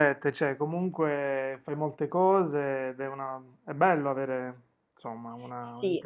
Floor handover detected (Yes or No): Yes